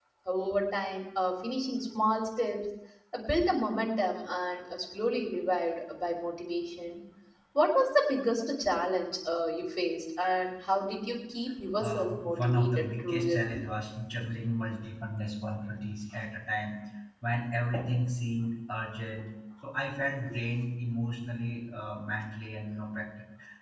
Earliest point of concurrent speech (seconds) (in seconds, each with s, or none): 11.8 s